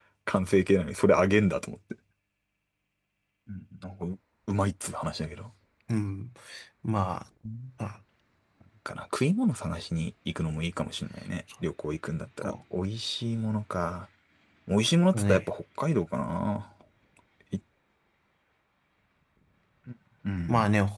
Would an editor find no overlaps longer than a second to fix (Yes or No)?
Yes